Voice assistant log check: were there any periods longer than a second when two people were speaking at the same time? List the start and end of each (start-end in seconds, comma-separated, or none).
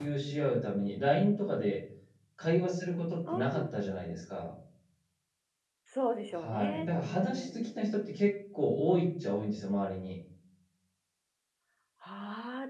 6.3-7.7